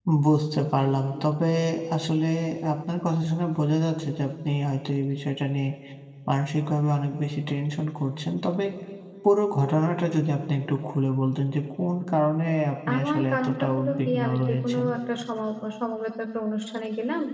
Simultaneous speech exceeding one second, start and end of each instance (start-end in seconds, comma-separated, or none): 12.9-14.9